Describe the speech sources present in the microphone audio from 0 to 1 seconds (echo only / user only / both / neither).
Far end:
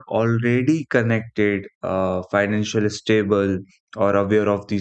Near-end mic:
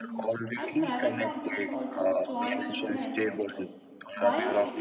both